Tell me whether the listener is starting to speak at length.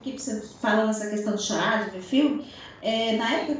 No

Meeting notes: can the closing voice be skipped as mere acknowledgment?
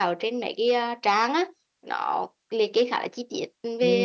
No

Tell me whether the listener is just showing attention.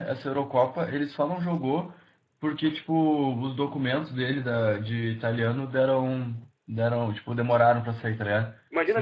Yes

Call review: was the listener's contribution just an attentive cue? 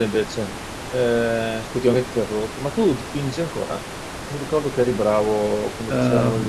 No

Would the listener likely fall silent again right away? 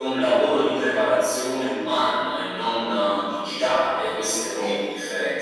Yes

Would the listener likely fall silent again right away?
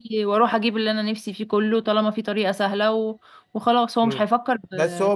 No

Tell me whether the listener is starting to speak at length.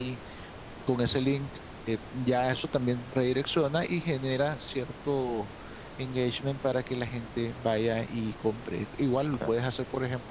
No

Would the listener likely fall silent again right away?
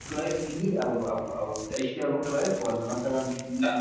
No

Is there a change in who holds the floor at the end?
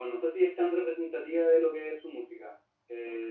No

